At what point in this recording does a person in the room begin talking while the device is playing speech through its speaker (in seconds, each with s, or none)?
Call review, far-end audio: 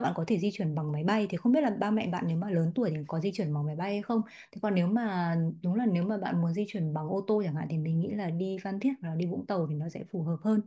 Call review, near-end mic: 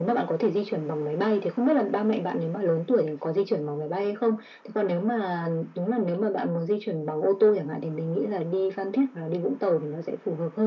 none